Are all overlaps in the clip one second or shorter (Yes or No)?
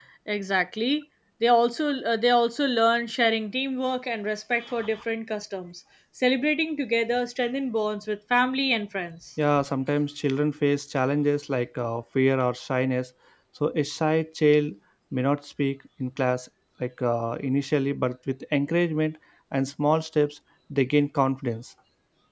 Yes